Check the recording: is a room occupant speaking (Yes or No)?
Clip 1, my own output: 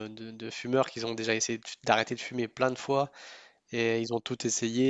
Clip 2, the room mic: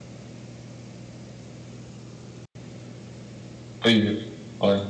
Yes